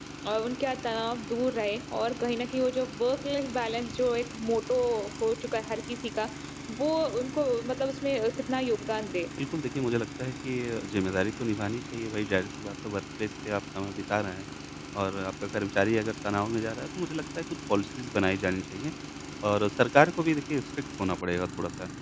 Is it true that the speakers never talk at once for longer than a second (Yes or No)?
Yes